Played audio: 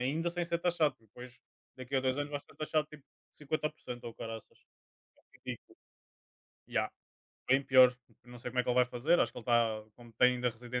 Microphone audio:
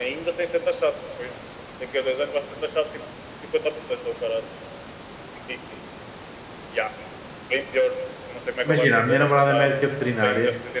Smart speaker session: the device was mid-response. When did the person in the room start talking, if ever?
8.6 s

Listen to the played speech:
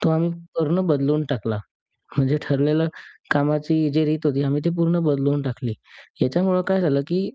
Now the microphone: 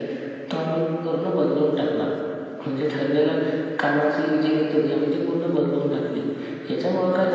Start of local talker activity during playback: none

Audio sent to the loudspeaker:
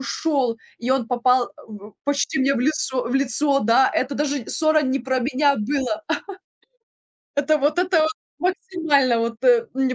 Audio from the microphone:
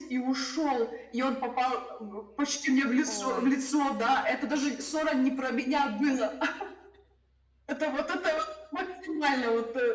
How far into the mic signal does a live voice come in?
3.1 s

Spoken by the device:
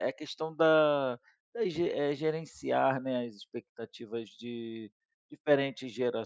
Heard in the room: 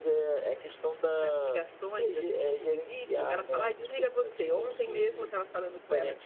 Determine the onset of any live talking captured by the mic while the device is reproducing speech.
1.2 s

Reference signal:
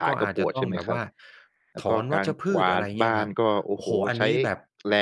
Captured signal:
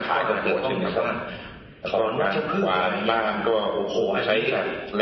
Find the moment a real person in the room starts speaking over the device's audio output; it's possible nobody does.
none

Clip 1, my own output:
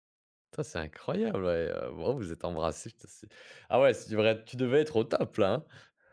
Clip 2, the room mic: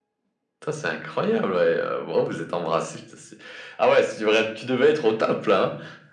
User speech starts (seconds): none

